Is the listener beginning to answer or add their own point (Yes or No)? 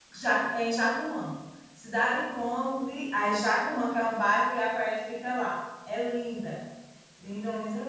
Yes